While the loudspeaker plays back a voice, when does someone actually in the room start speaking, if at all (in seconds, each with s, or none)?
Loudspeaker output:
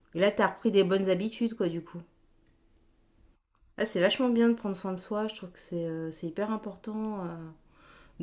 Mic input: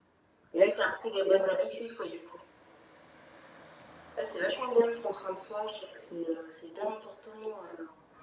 none